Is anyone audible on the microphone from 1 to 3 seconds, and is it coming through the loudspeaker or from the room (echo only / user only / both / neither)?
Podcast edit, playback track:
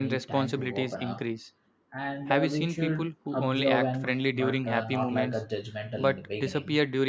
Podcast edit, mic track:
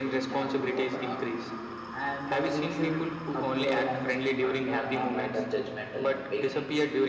echo only